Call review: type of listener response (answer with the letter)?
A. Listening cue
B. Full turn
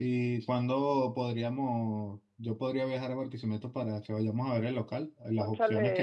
A